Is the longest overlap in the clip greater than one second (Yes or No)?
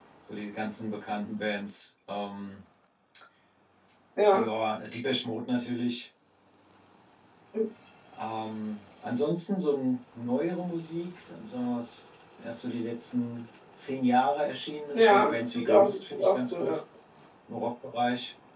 Yes